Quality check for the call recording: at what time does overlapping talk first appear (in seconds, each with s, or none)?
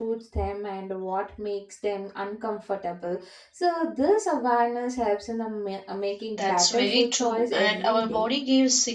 6.3 s